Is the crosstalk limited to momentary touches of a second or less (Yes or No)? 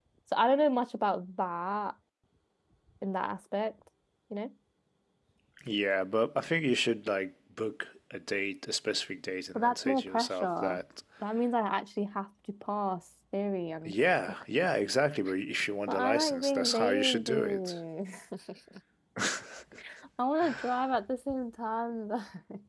No